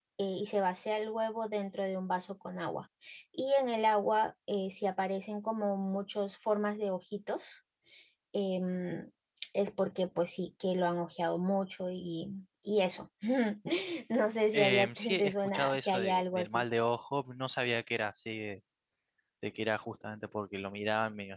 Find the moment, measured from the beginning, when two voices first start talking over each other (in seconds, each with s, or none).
14.5 s